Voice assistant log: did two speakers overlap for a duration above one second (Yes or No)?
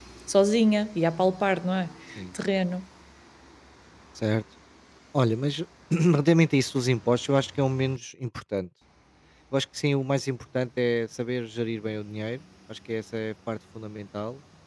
No